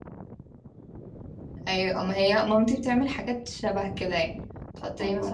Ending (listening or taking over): listening